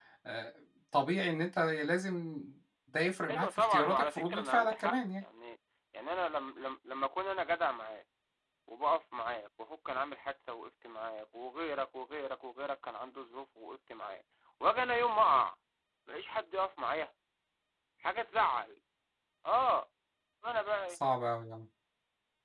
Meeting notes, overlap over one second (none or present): present